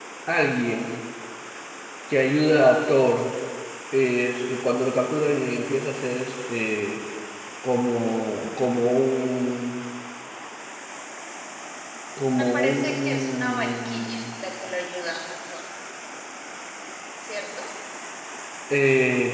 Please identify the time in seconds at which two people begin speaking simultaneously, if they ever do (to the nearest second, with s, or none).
13 s